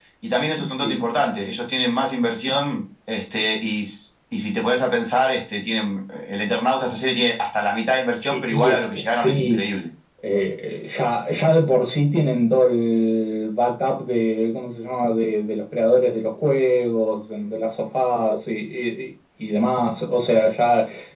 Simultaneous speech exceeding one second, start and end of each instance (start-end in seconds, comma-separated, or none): 8.3-9.6